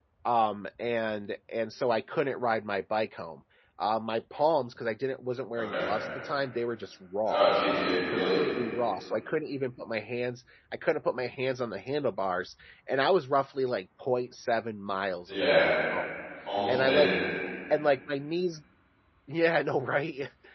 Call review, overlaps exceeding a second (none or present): none